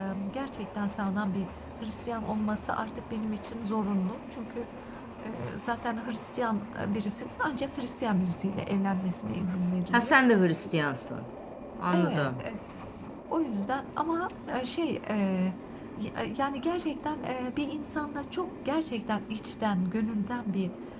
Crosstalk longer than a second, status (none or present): none